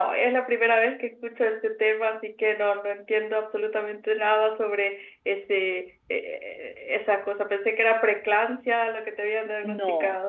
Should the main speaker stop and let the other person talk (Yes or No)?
Yes